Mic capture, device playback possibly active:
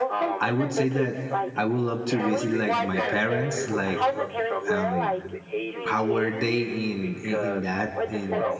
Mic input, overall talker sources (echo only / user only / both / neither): both